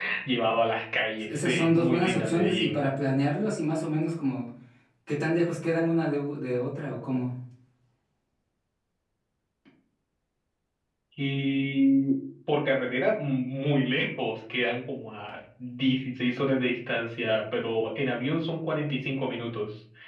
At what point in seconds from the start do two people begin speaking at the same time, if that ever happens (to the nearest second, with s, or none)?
1 s